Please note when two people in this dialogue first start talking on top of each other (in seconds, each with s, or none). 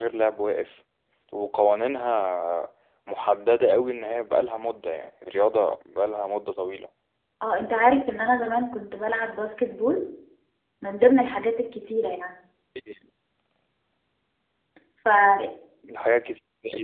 none